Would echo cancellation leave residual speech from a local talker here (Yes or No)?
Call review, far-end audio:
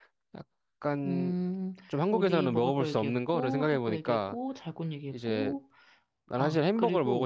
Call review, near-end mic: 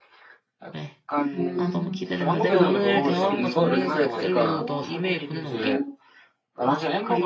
Yes